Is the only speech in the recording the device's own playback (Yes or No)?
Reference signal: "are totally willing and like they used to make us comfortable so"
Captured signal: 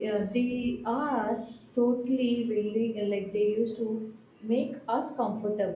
Yes